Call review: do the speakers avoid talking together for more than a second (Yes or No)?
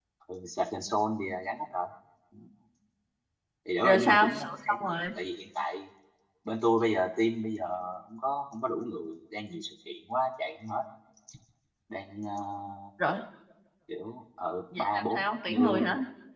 No